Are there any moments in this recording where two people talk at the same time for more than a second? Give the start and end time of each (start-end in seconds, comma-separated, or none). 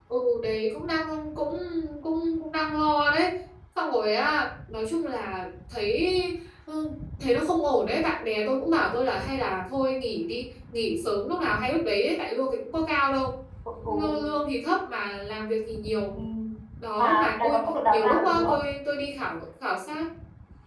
17.0-18.6